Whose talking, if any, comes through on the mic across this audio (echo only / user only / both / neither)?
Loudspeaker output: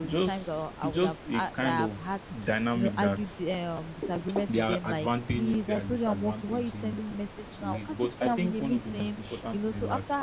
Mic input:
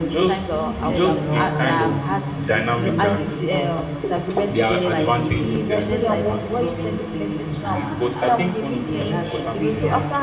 both